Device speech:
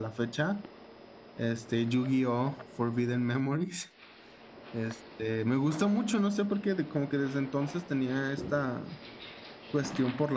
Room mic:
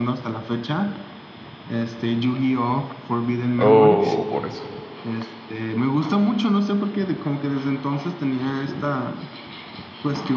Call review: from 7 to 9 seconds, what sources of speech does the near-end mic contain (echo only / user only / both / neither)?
echo only